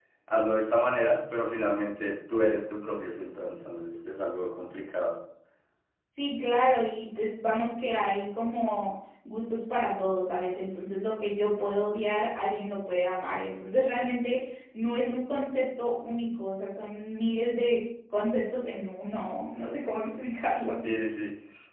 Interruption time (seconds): none

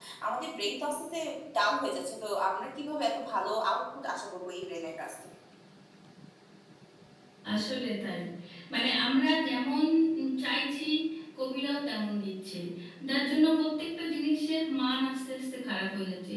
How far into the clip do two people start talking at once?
none

